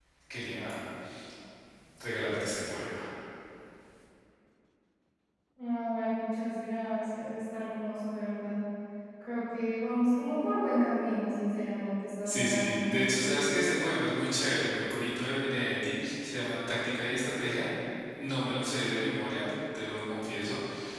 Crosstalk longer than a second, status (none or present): present